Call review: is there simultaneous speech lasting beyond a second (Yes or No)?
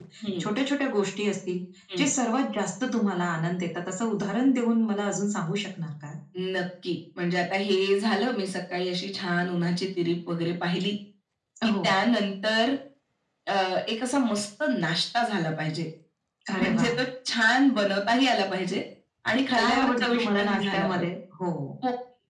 Yes